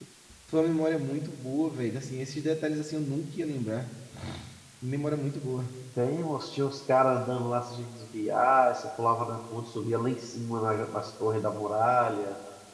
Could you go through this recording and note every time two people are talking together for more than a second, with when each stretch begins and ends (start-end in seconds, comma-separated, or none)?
none